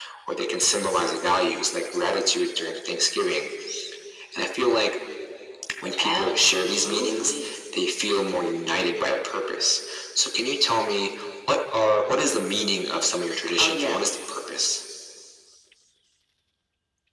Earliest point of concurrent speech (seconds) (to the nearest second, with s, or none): 6 s